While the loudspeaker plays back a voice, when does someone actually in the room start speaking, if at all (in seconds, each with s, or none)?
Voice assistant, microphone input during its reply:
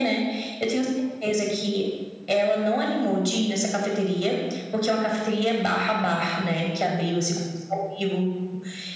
none